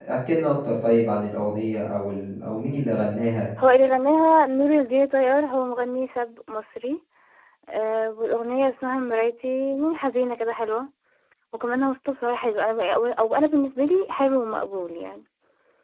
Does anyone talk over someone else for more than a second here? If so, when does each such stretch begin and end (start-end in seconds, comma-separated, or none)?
none